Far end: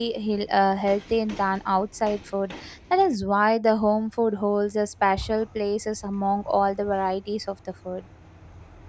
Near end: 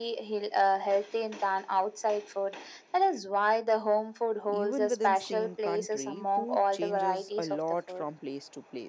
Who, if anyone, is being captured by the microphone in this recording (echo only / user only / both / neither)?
both